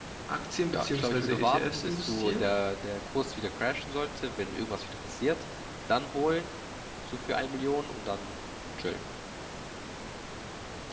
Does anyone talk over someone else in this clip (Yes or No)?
Yes